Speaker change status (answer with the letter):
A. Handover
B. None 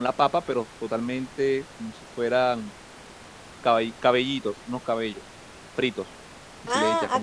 A